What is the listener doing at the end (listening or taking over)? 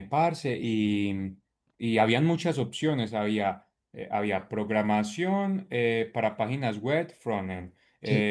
listening